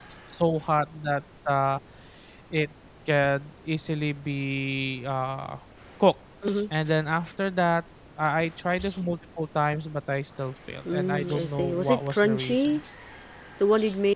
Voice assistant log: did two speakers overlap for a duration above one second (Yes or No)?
Yes